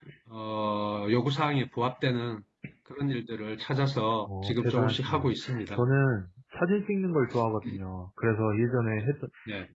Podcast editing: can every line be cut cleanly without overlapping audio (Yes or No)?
No